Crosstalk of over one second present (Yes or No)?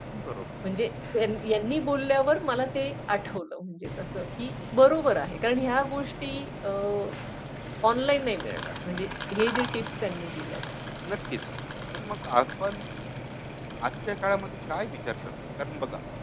No